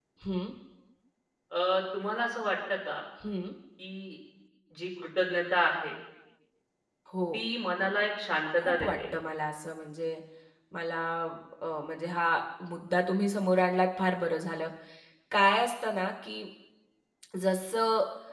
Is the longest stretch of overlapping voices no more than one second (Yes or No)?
Yes